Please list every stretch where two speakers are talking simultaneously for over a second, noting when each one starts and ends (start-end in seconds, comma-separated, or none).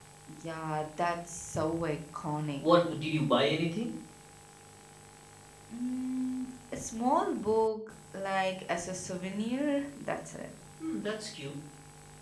none